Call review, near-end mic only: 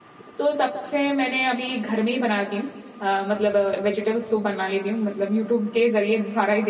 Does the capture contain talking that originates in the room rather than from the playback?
Yes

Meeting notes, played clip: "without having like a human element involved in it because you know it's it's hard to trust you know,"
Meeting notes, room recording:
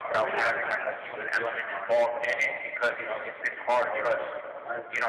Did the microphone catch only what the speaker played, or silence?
No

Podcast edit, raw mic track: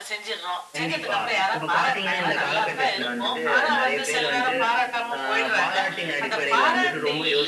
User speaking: Yes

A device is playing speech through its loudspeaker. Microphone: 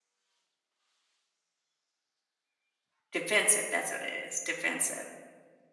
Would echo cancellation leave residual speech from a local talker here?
Yes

